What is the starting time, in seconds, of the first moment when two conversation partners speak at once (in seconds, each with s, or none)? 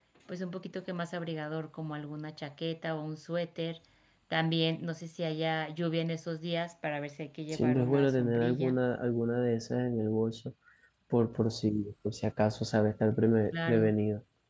7.5 s